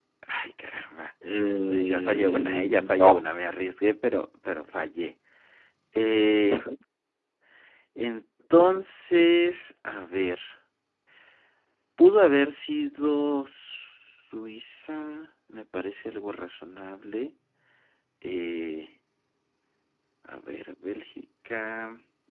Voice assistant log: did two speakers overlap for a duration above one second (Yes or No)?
Yes